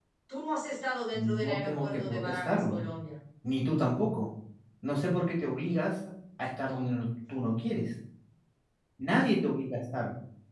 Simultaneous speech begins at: 1.1 s

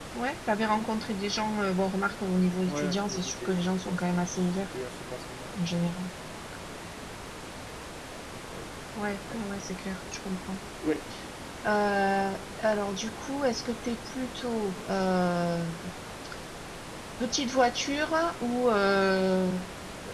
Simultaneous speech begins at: 2.7 s

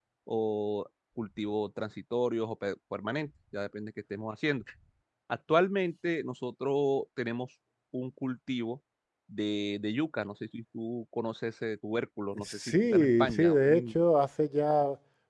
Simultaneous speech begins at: 12.4 s

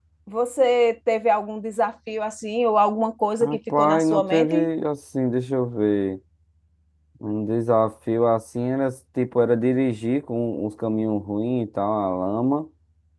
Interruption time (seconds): 3.4 s

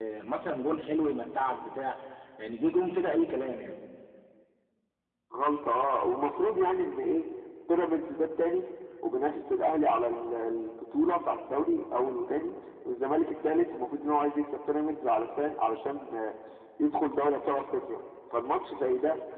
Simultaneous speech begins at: none

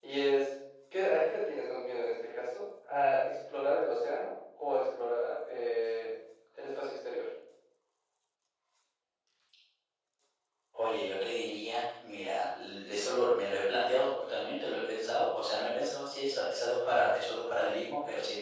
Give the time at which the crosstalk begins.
none

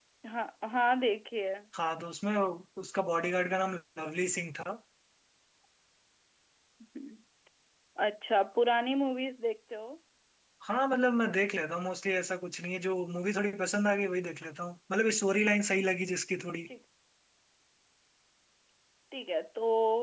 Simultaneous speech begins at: none

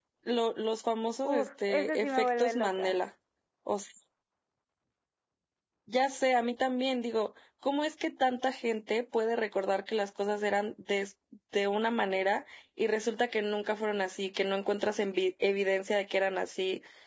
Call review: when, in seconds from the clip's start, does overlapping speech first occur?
1.2 s

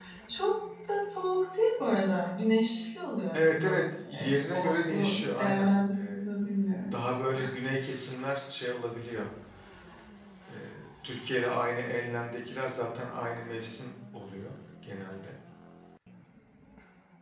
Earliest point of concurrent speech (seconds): 3.3 s

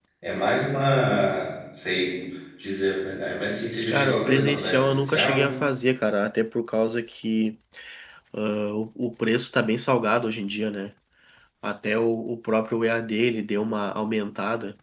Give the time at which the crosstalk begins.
3.9 s

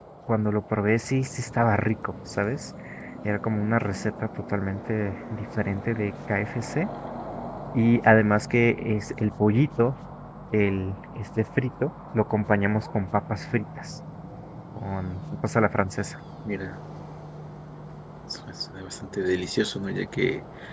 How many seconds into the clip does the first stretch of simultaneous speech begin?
none

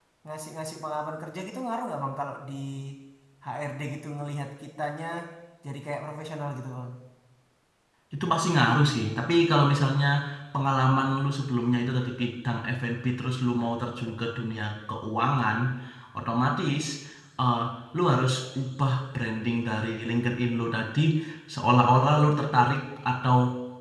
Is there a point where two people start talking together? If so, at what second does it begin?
none

